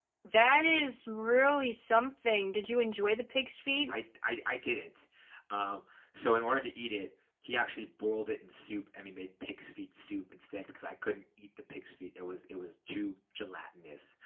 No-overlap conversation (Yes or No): Yes